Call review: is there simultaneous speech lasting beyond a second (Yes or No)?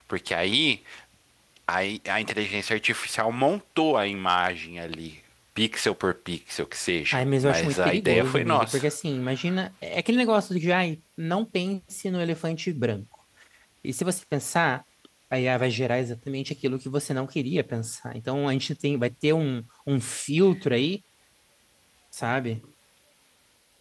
Yes